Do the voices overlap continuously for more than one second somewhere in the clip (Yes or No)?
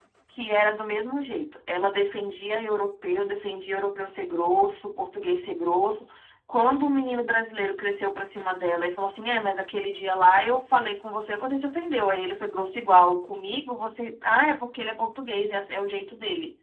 No